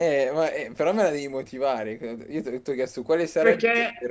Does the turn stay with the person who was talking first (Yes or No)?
No